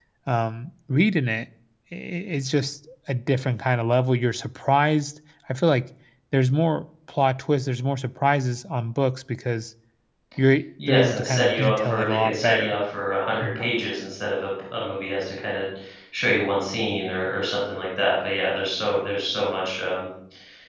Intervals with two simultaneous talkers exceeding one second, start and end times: 10.9-12.8

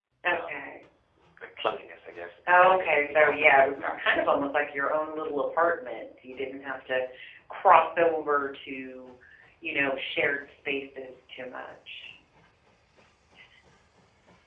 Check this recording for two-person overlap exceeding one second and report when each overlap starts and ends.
2.5-4.5

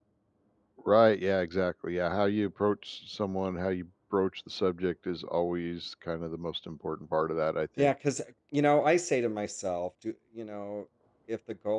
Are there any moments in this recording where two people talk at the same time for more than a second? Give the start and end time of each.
none

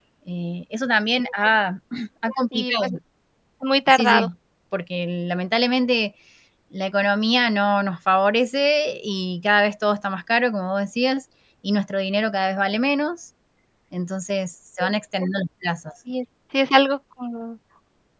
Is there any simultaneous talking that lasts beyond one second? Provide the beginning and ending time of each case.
none

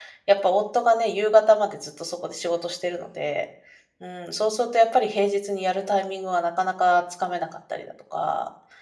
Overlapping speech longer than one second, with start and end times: none

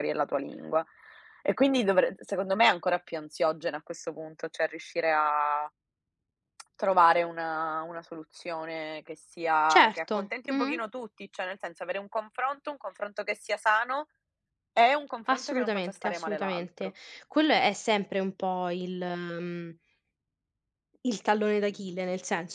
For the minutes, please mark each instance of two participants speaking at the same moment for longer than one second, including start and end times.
15.3-16.9

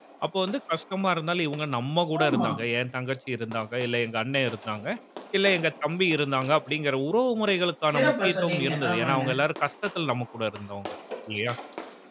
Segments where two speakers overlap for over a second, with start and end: 7.9-9.2

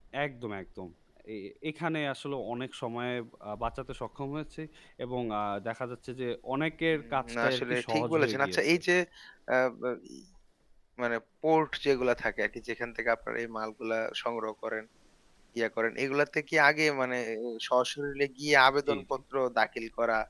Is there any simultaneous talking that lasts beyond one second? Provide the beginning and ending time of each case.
6.9-8.8

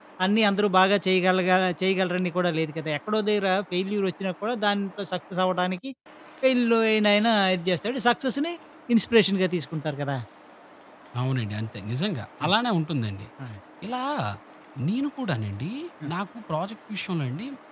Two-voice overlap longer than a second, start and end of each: none

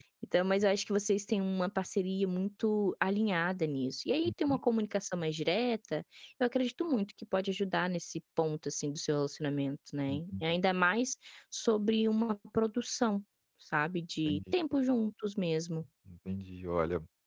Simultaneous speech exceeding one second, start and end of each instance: none

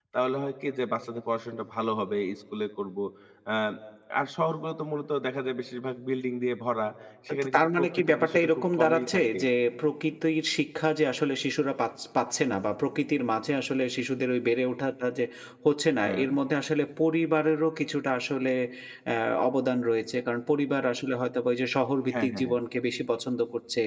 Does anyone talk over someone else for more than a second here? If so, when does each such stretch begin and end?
7.5-9.4

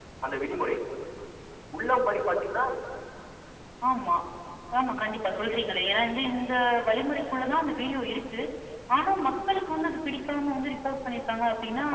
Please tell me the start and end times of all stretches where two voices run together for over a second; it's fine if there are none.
none

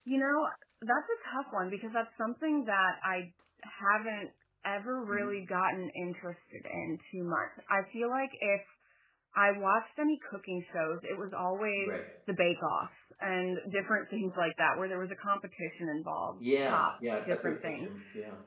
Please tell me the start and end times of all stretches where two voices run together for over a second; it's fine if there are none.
16.6-17.9

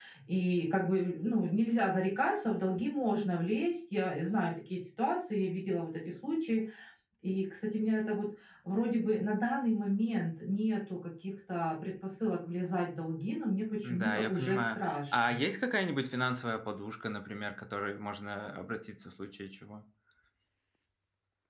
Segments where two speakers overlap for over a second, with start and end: 13.8-15.4

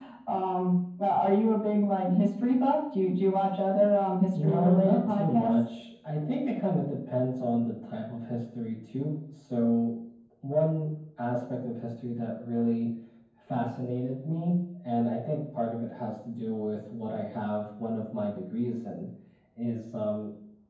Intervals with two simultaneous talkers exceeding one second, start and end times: 4.3-5.8

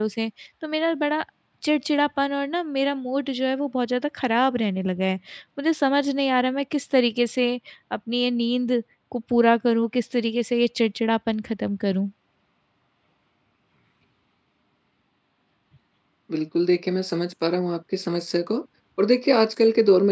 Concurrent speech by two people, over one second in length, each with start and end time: none

